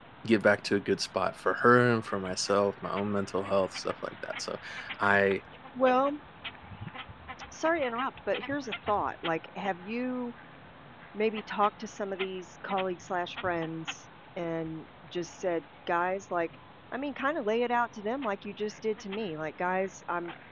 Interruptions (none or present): none